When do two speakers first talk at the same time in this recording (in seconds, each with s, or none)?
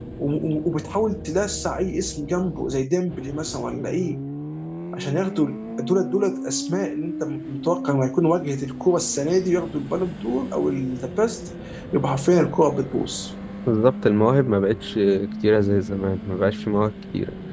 none